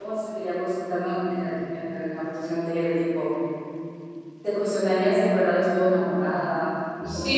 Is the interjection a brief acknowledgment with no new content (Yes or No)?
No